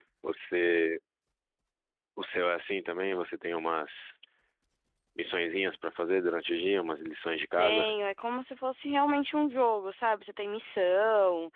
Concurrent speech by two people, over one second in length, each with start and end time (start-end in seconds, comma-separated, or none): none